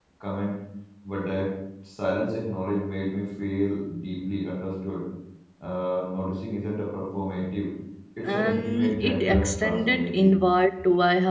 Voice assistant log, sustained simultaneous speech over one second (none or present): present